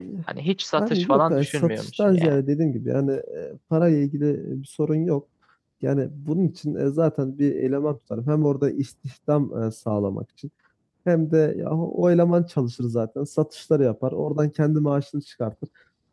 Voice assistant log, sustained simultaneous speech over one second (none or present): present